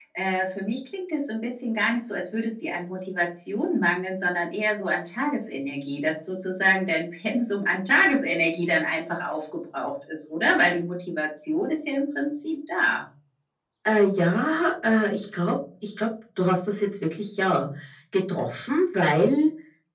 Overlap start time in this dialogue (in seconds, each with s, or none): none